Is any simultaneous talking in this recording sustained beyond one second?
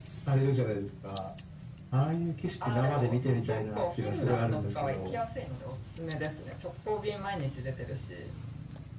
Yes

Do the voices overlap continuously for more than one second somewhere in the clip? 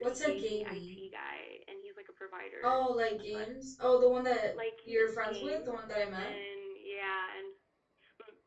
Yes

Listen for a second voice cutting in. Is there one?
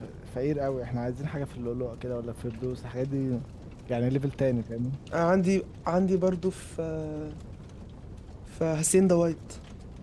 No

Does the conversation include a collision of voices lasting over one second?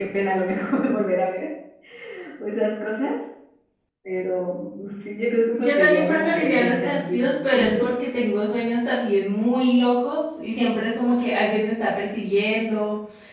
Yes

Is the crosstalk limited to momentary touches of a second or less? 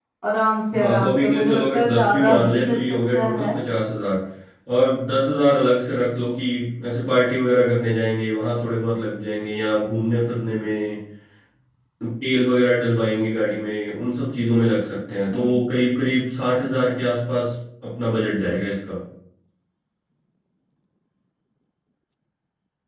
No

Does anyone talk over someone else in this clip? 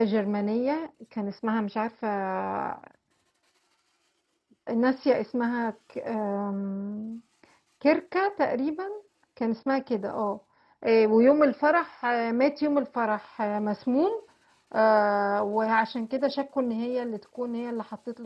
No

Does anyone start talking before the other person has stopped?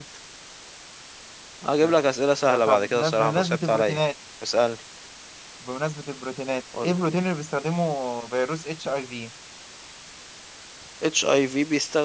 Yes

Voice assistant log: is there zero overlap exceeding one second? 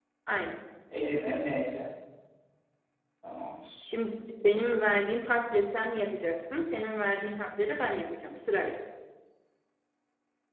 Yes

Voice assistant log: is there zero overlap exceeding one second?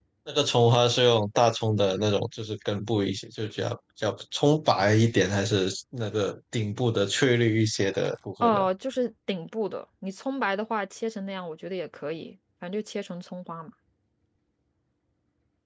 Yes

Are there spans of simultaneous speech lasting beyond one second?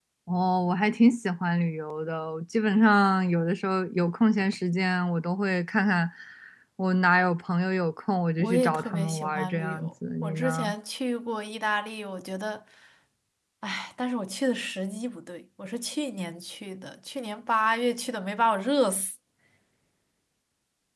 Yes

